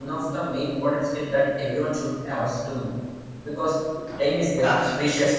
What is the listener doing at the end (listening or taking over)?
listening